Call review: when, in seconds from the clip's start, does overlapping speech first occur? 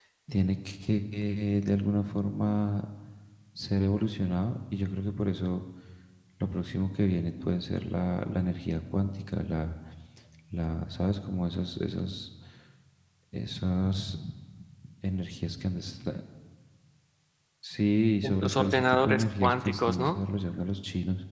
18.4 s

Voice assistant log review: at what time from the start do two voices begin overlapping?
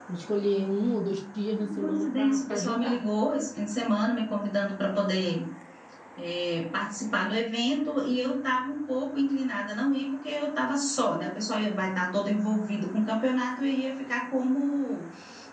1.5 s

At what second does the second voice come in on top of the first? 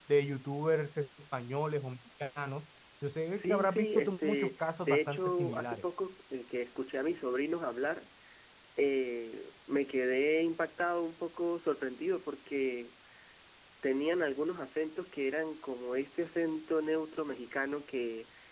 3.4 s

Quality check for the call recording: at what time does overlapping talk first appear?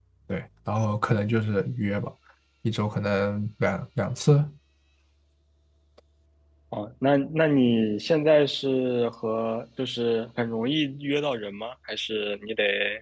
none

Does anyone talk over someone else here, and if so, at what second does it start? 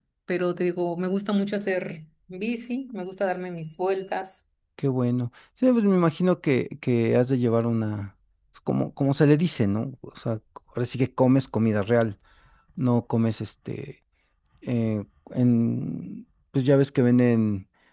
none

